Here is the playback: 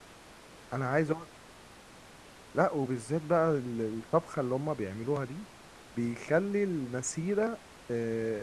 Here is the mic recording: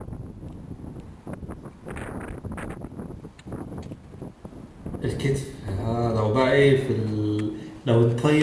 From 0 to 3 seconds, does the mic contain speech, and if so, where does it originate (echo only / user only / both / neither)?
neither